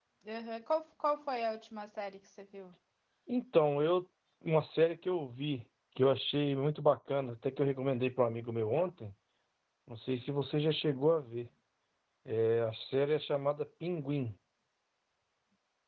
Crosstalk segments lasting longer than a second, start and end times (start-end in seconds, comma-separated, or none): none